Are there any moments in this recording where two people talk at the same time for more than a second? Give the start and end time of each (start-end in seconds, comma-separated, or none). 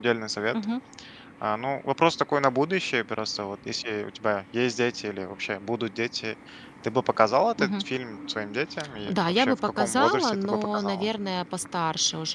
9.1-11.1